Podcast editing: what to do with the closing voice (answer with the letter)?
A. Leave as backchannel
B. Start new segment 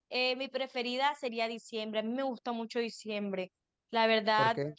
A